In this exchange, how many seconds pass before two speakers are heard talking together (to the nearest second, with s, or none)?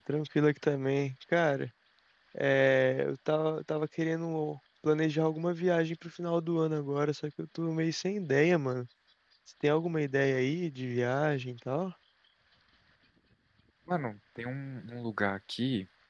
none